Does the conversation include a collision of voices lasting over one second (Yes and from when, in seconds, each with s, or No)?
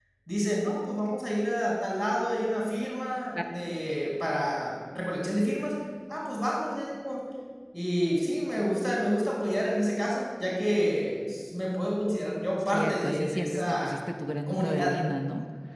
Yes, from 12.7 s